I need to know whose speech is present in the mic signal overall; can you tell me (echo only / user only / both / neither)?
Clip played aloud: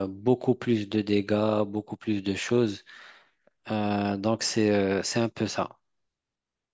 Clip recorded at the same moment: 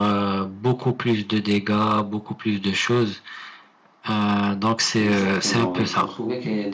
both